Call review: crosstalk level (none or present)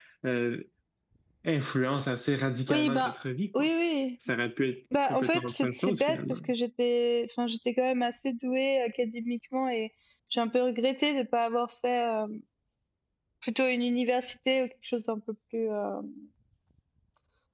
present